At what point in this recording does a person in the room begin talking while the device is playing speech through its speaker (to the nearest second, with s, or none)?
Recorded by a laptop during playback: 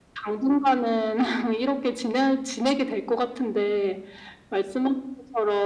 none